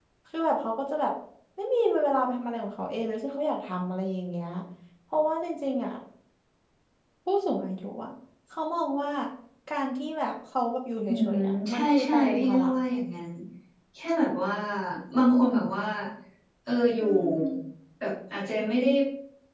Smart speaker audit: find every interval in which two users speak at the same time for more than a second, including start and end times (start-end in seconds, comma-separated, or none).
11.1-12.7